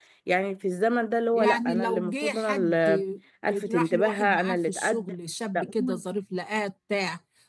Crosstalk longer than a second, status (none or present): present